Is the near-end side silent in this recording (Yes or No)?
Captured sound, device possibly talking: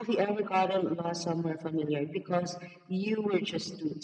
Yes